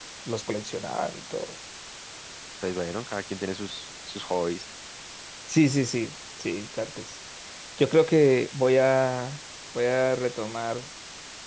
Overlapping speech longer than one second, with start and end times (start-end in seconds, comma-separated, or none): none